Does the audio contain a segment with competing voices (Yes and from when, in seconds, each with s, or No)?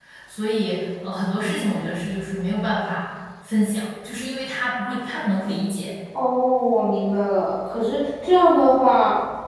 No